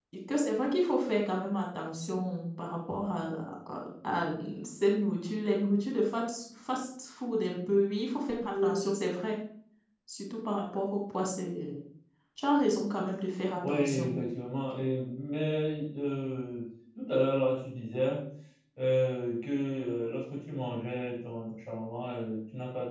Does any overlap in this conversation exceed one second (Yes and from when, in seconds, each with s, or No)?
No